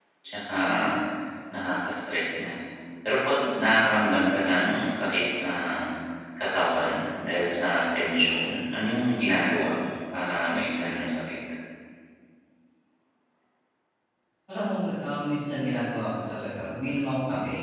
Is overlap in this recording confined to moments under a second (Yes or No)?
Yes